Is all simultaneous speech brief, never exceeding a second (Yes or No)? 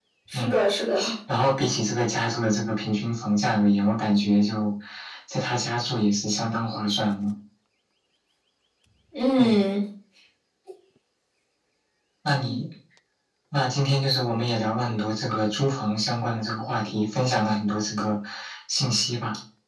Yes